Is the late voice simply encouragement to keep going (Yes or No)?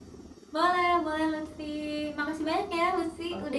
No